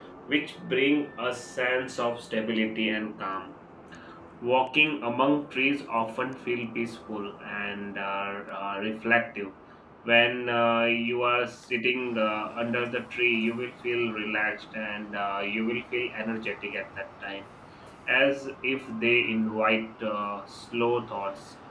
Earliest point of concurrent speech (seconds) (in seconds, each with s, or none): none